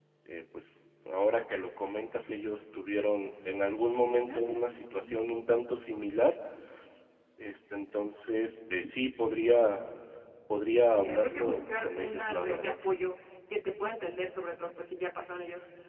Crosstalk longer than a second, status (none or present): present